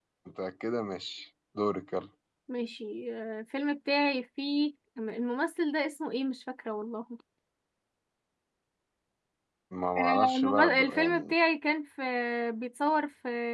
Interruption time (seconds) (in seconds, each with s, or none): 10.0 s